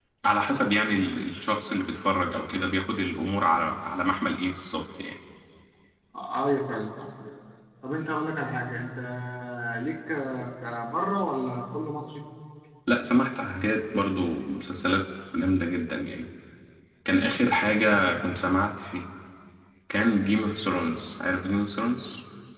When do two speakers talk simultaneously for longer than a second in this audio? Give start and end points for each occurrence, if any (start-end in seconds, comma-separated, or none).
none